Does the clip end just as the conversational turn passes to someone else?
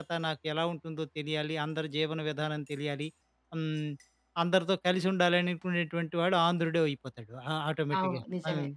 No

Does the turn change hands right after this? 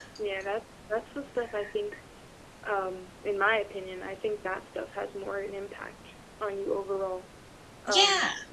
No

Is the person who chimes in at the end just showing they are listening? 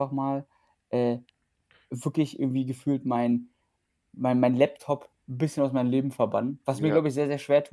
Yes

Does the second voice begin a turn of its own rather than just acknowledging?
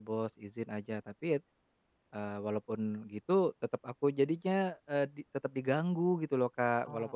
No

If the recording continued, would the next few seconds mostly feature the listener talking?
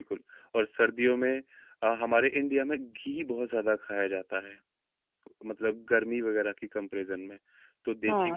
Yes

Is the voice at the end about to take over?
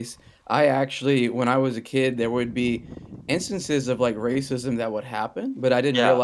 No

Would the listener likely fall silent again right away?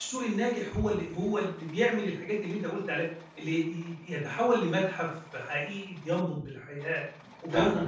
No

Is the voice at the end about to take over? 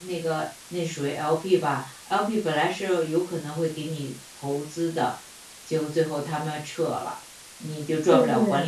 No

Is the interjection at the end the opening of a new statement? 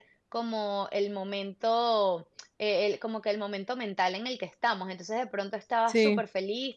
No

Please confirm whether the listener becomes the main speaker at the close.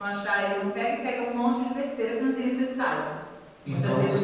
Yes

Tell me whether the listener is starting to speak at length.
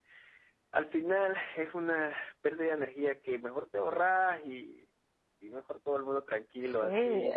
Yes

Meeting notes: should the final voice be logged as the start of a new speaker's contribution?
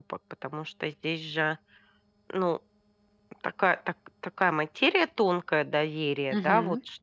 No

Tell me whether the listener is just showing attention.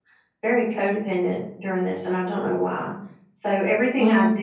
Yes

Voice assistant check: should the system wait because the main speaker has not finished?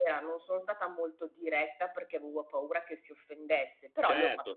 No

